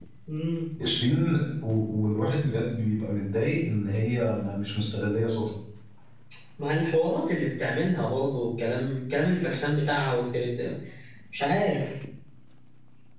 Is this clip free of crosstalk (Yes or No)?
Yes